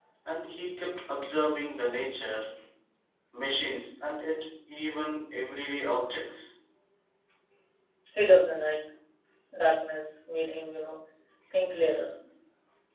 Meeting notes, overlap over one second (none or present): none